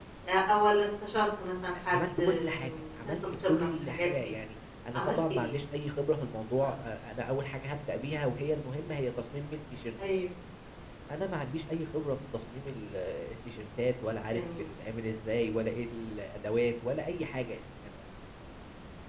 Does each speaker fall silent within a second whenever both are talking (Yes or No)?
No